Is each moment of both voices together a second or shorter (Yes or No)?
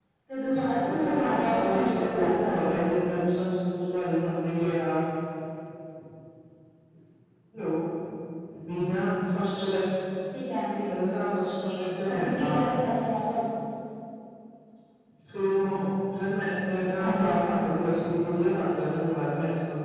No